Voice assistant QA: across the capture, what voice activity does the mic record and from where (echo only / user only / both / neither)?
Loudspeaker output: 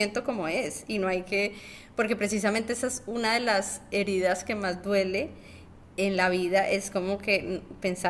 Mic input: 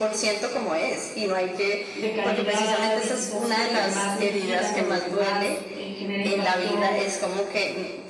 both